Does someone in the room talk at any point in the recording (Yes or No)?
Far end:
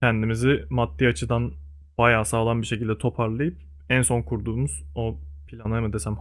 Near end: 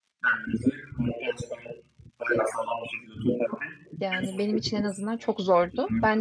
Yes